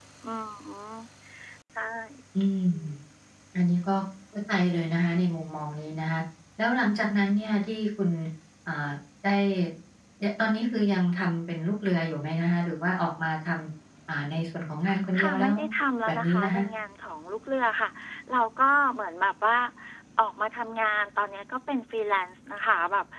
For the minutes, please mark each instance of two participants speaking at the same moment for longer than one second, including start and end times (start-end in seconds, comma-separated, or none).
none